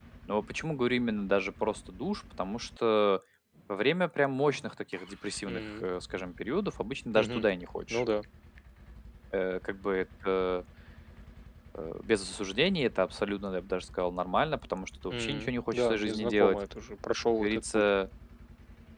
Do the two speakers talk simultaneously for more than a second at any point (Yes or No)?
Yes